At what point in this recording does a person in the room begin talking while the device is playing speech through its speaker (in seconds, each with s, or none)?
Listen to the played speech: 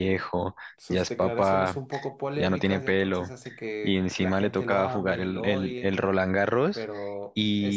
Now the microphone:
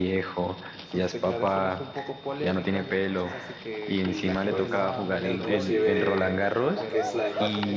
4.0 s